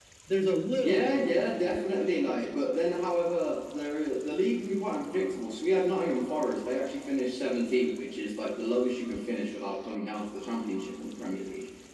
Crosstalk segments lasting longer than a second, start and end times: 0.7-2.6

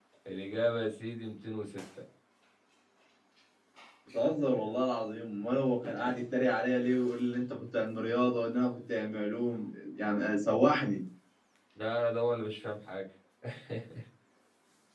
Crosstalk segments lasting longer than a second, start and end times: none

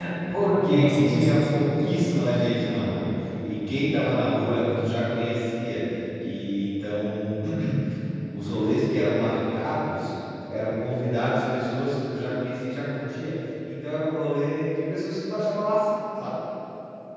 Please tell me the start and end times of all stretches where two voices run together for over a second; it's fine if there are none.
0.5-2.1

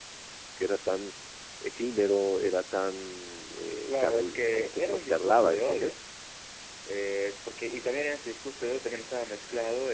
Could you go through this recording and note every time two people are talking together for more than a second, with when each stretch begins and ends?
3.9-5.9

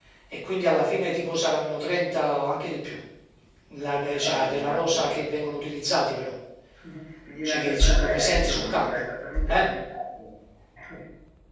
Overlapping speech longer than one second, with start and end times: 4.0-5.4, 7.4-8.9

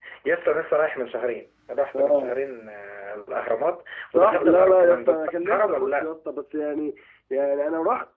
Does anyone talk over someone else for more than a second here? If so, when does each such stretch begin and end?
4.1-6.1

